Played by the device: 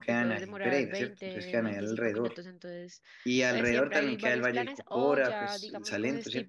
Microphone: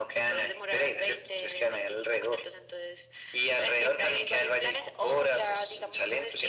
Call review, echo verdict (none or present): present